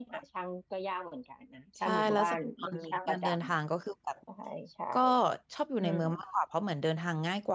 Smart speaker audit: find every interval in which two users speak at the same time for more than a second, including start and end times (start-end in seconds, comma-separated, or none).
1.8-3.2